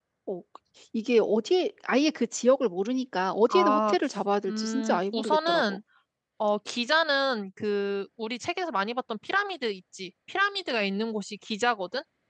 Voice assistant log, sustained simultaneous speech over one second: present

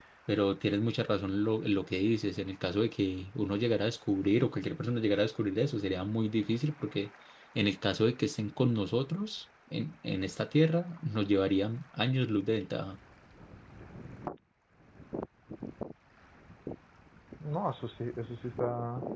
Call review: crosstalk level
none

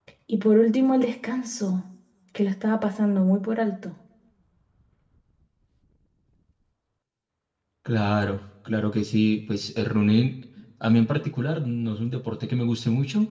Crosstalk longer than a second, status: none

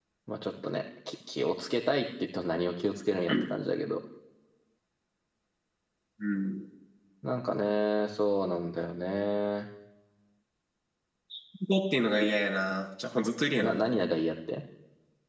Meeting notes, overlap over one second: none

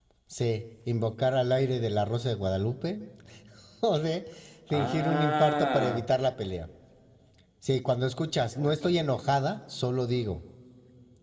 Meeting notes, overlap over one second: present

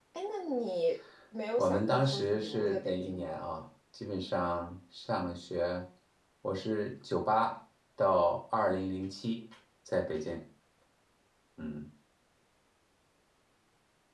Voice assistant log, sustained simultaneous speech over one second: present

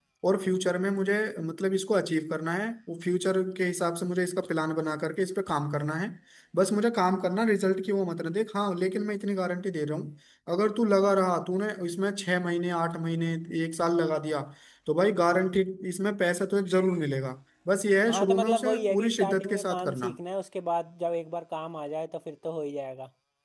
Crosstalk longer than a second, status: present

